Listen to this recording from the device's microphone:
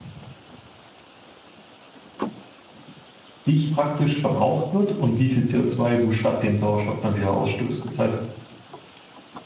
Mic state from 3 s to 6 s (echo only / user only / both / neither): user only